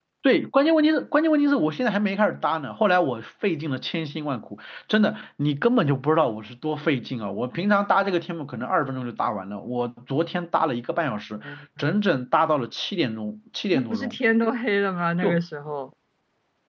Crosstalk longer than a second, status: none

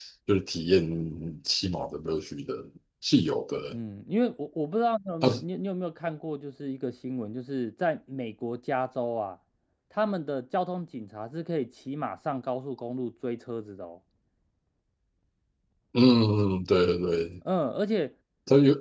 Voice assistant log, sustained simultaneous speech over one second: none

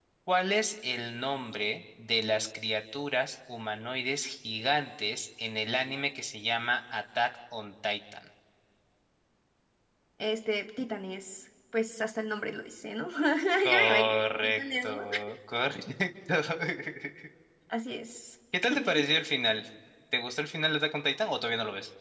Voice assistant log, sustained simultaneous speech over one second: present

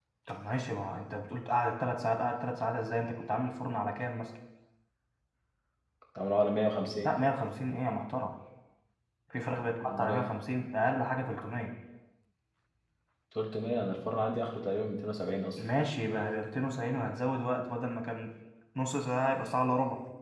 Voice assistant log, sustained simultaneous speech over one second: none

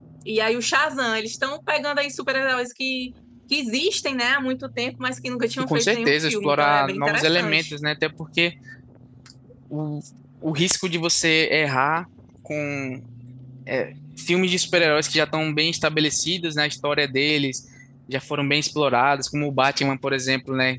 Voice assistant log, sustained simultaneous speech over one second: present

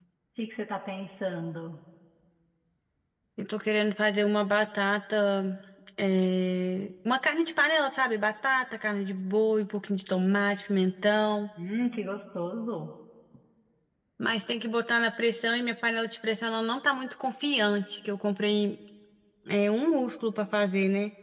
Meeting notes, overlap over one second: none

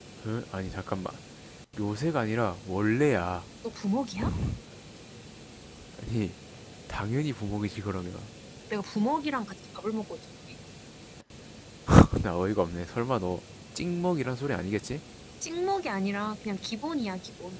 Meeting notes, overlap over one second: none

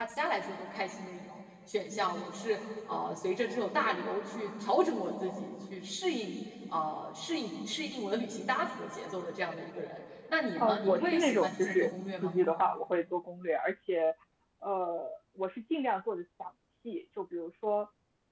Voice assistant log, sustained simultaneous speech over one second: present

